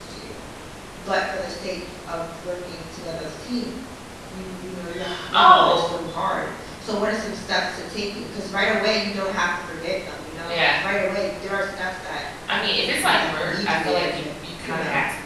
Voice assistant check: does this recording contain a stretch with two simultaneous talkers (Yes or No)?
Yes